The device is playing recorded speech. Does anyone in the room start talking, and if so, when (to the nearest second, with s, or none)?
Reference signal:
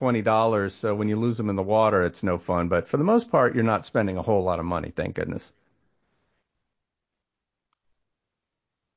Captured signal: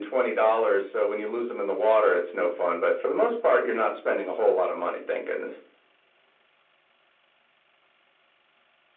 none